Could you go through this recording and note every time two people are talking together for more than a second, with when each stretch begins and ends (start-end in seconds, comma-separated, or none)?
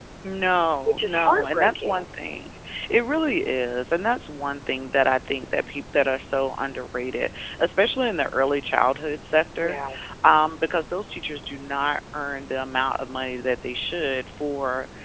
0.8-2.0